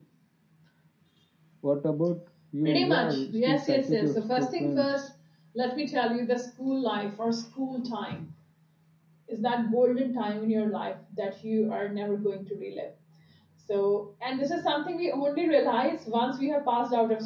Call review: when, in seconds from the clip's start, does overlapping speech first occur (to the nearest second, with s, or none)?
3 s